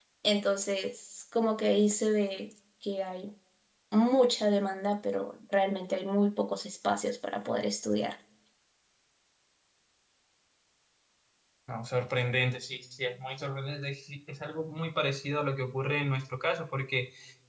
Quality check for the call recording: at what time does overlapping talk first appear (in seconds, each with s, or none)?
none